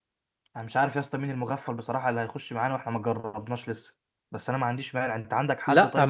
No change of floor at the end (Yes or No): No